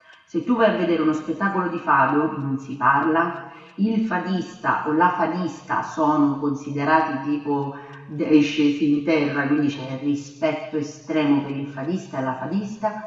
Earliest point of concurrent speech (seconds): none

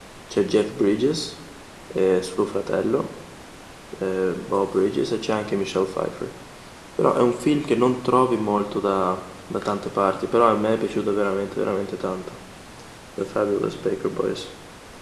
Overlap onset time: none

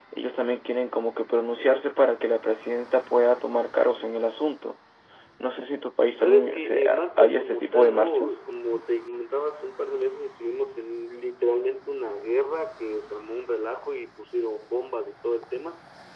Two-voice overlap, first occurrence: 6.2 s

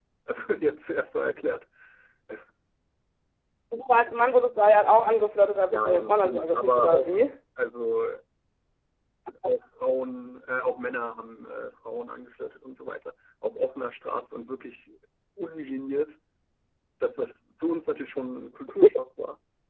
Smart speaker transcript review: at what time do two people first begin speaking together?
5.7 s

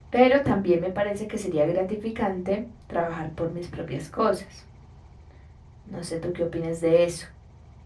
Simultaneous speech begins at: none

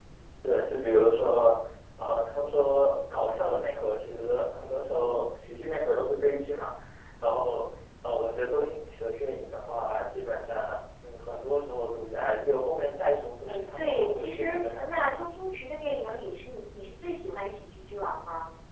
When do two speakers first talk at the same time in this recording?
13.5 s

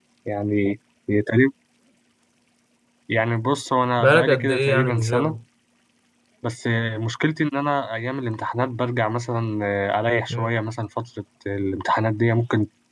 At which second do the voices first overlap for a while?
4.0 s

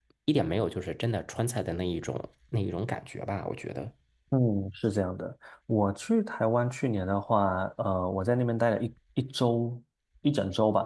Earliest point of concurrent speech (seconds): none

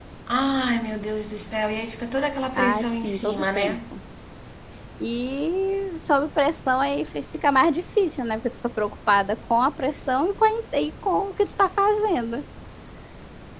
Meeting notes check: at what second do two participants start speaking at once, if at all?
2.5 s

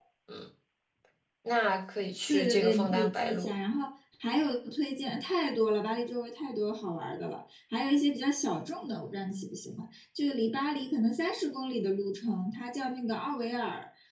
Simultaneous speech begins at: 2.3 s

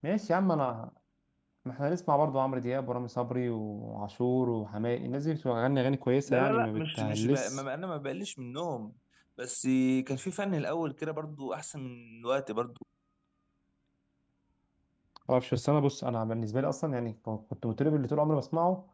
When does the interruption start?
6.3 s

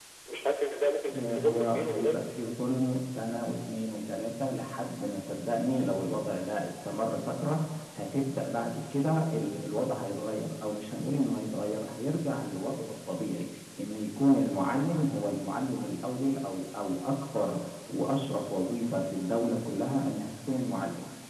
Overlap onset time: 1.1 s

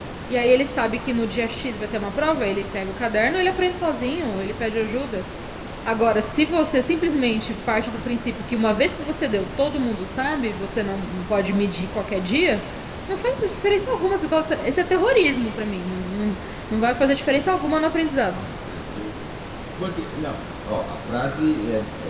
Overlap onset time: none

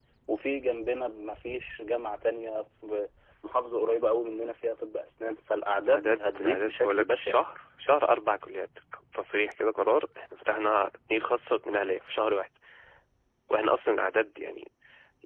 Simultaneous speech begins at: 5.9 s

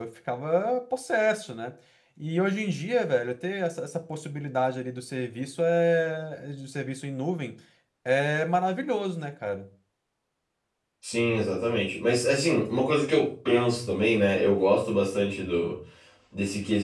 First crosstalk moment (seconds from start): none

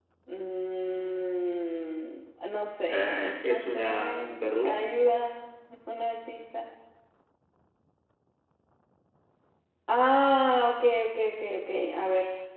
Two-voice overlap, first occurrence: 2.9 s

